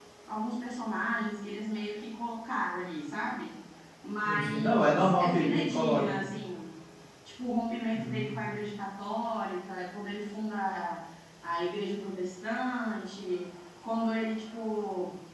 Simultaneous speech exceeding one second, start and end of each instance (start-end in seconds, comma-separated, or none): 4.2-6.2